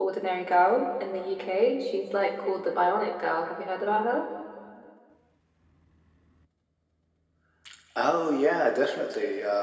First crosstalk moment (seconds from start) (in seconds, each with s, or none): none